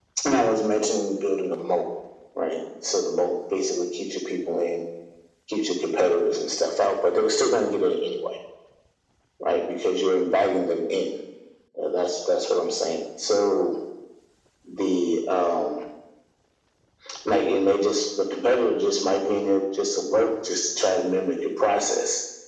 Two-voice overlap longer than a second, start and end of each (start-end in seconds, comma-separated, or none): none